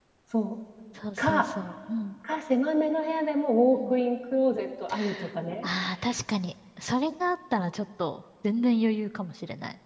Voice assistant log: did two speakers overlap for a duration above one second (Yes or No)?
No